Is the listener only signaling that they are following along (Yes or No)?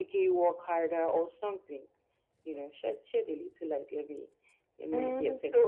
No